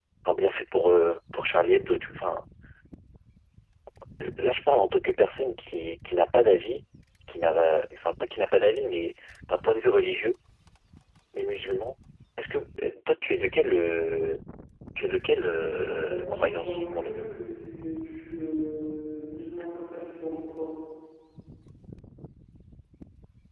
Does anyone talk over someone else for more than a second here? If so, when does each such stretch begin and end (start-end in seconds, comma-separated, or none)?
15.8-17.3